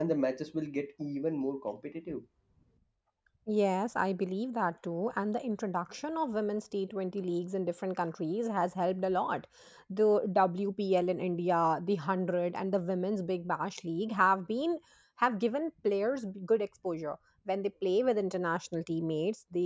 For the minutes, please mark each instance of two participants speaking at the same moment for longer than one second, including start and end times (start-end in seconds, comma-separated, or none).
none